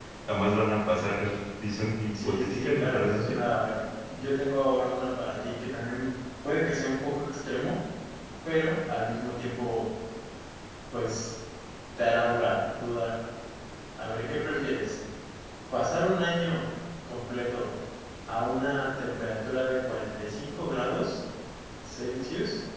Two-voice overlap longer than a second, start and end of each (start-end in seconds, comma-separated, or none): 2.1-3.4